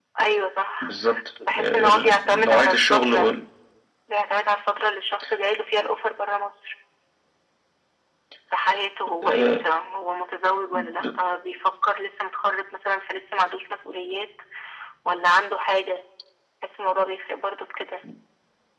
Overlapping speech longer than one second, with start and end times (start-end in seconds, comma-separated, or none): 1.5-3.3